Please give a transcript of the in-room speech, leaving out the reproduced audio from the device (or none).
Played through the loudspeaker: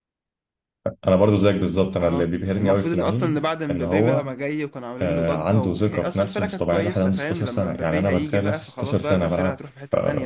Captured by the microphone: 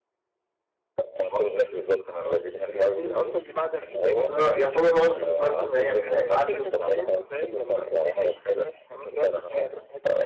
اصل هو يعتبر هو اللي خسرهم فاهم يعني كان هيتعادلوا